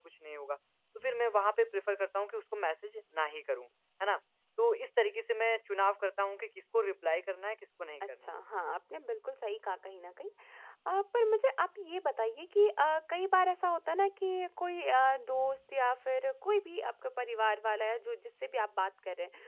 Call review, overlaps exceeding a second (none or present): none